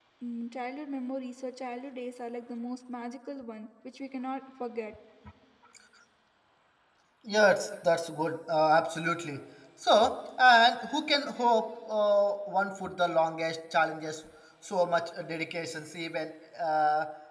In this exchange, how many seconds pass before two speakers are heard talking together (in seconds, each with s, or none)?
none